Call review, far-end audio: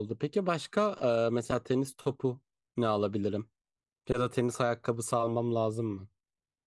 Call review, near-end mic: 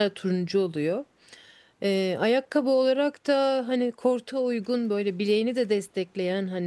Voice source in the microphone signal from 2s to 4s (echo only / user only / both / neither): user only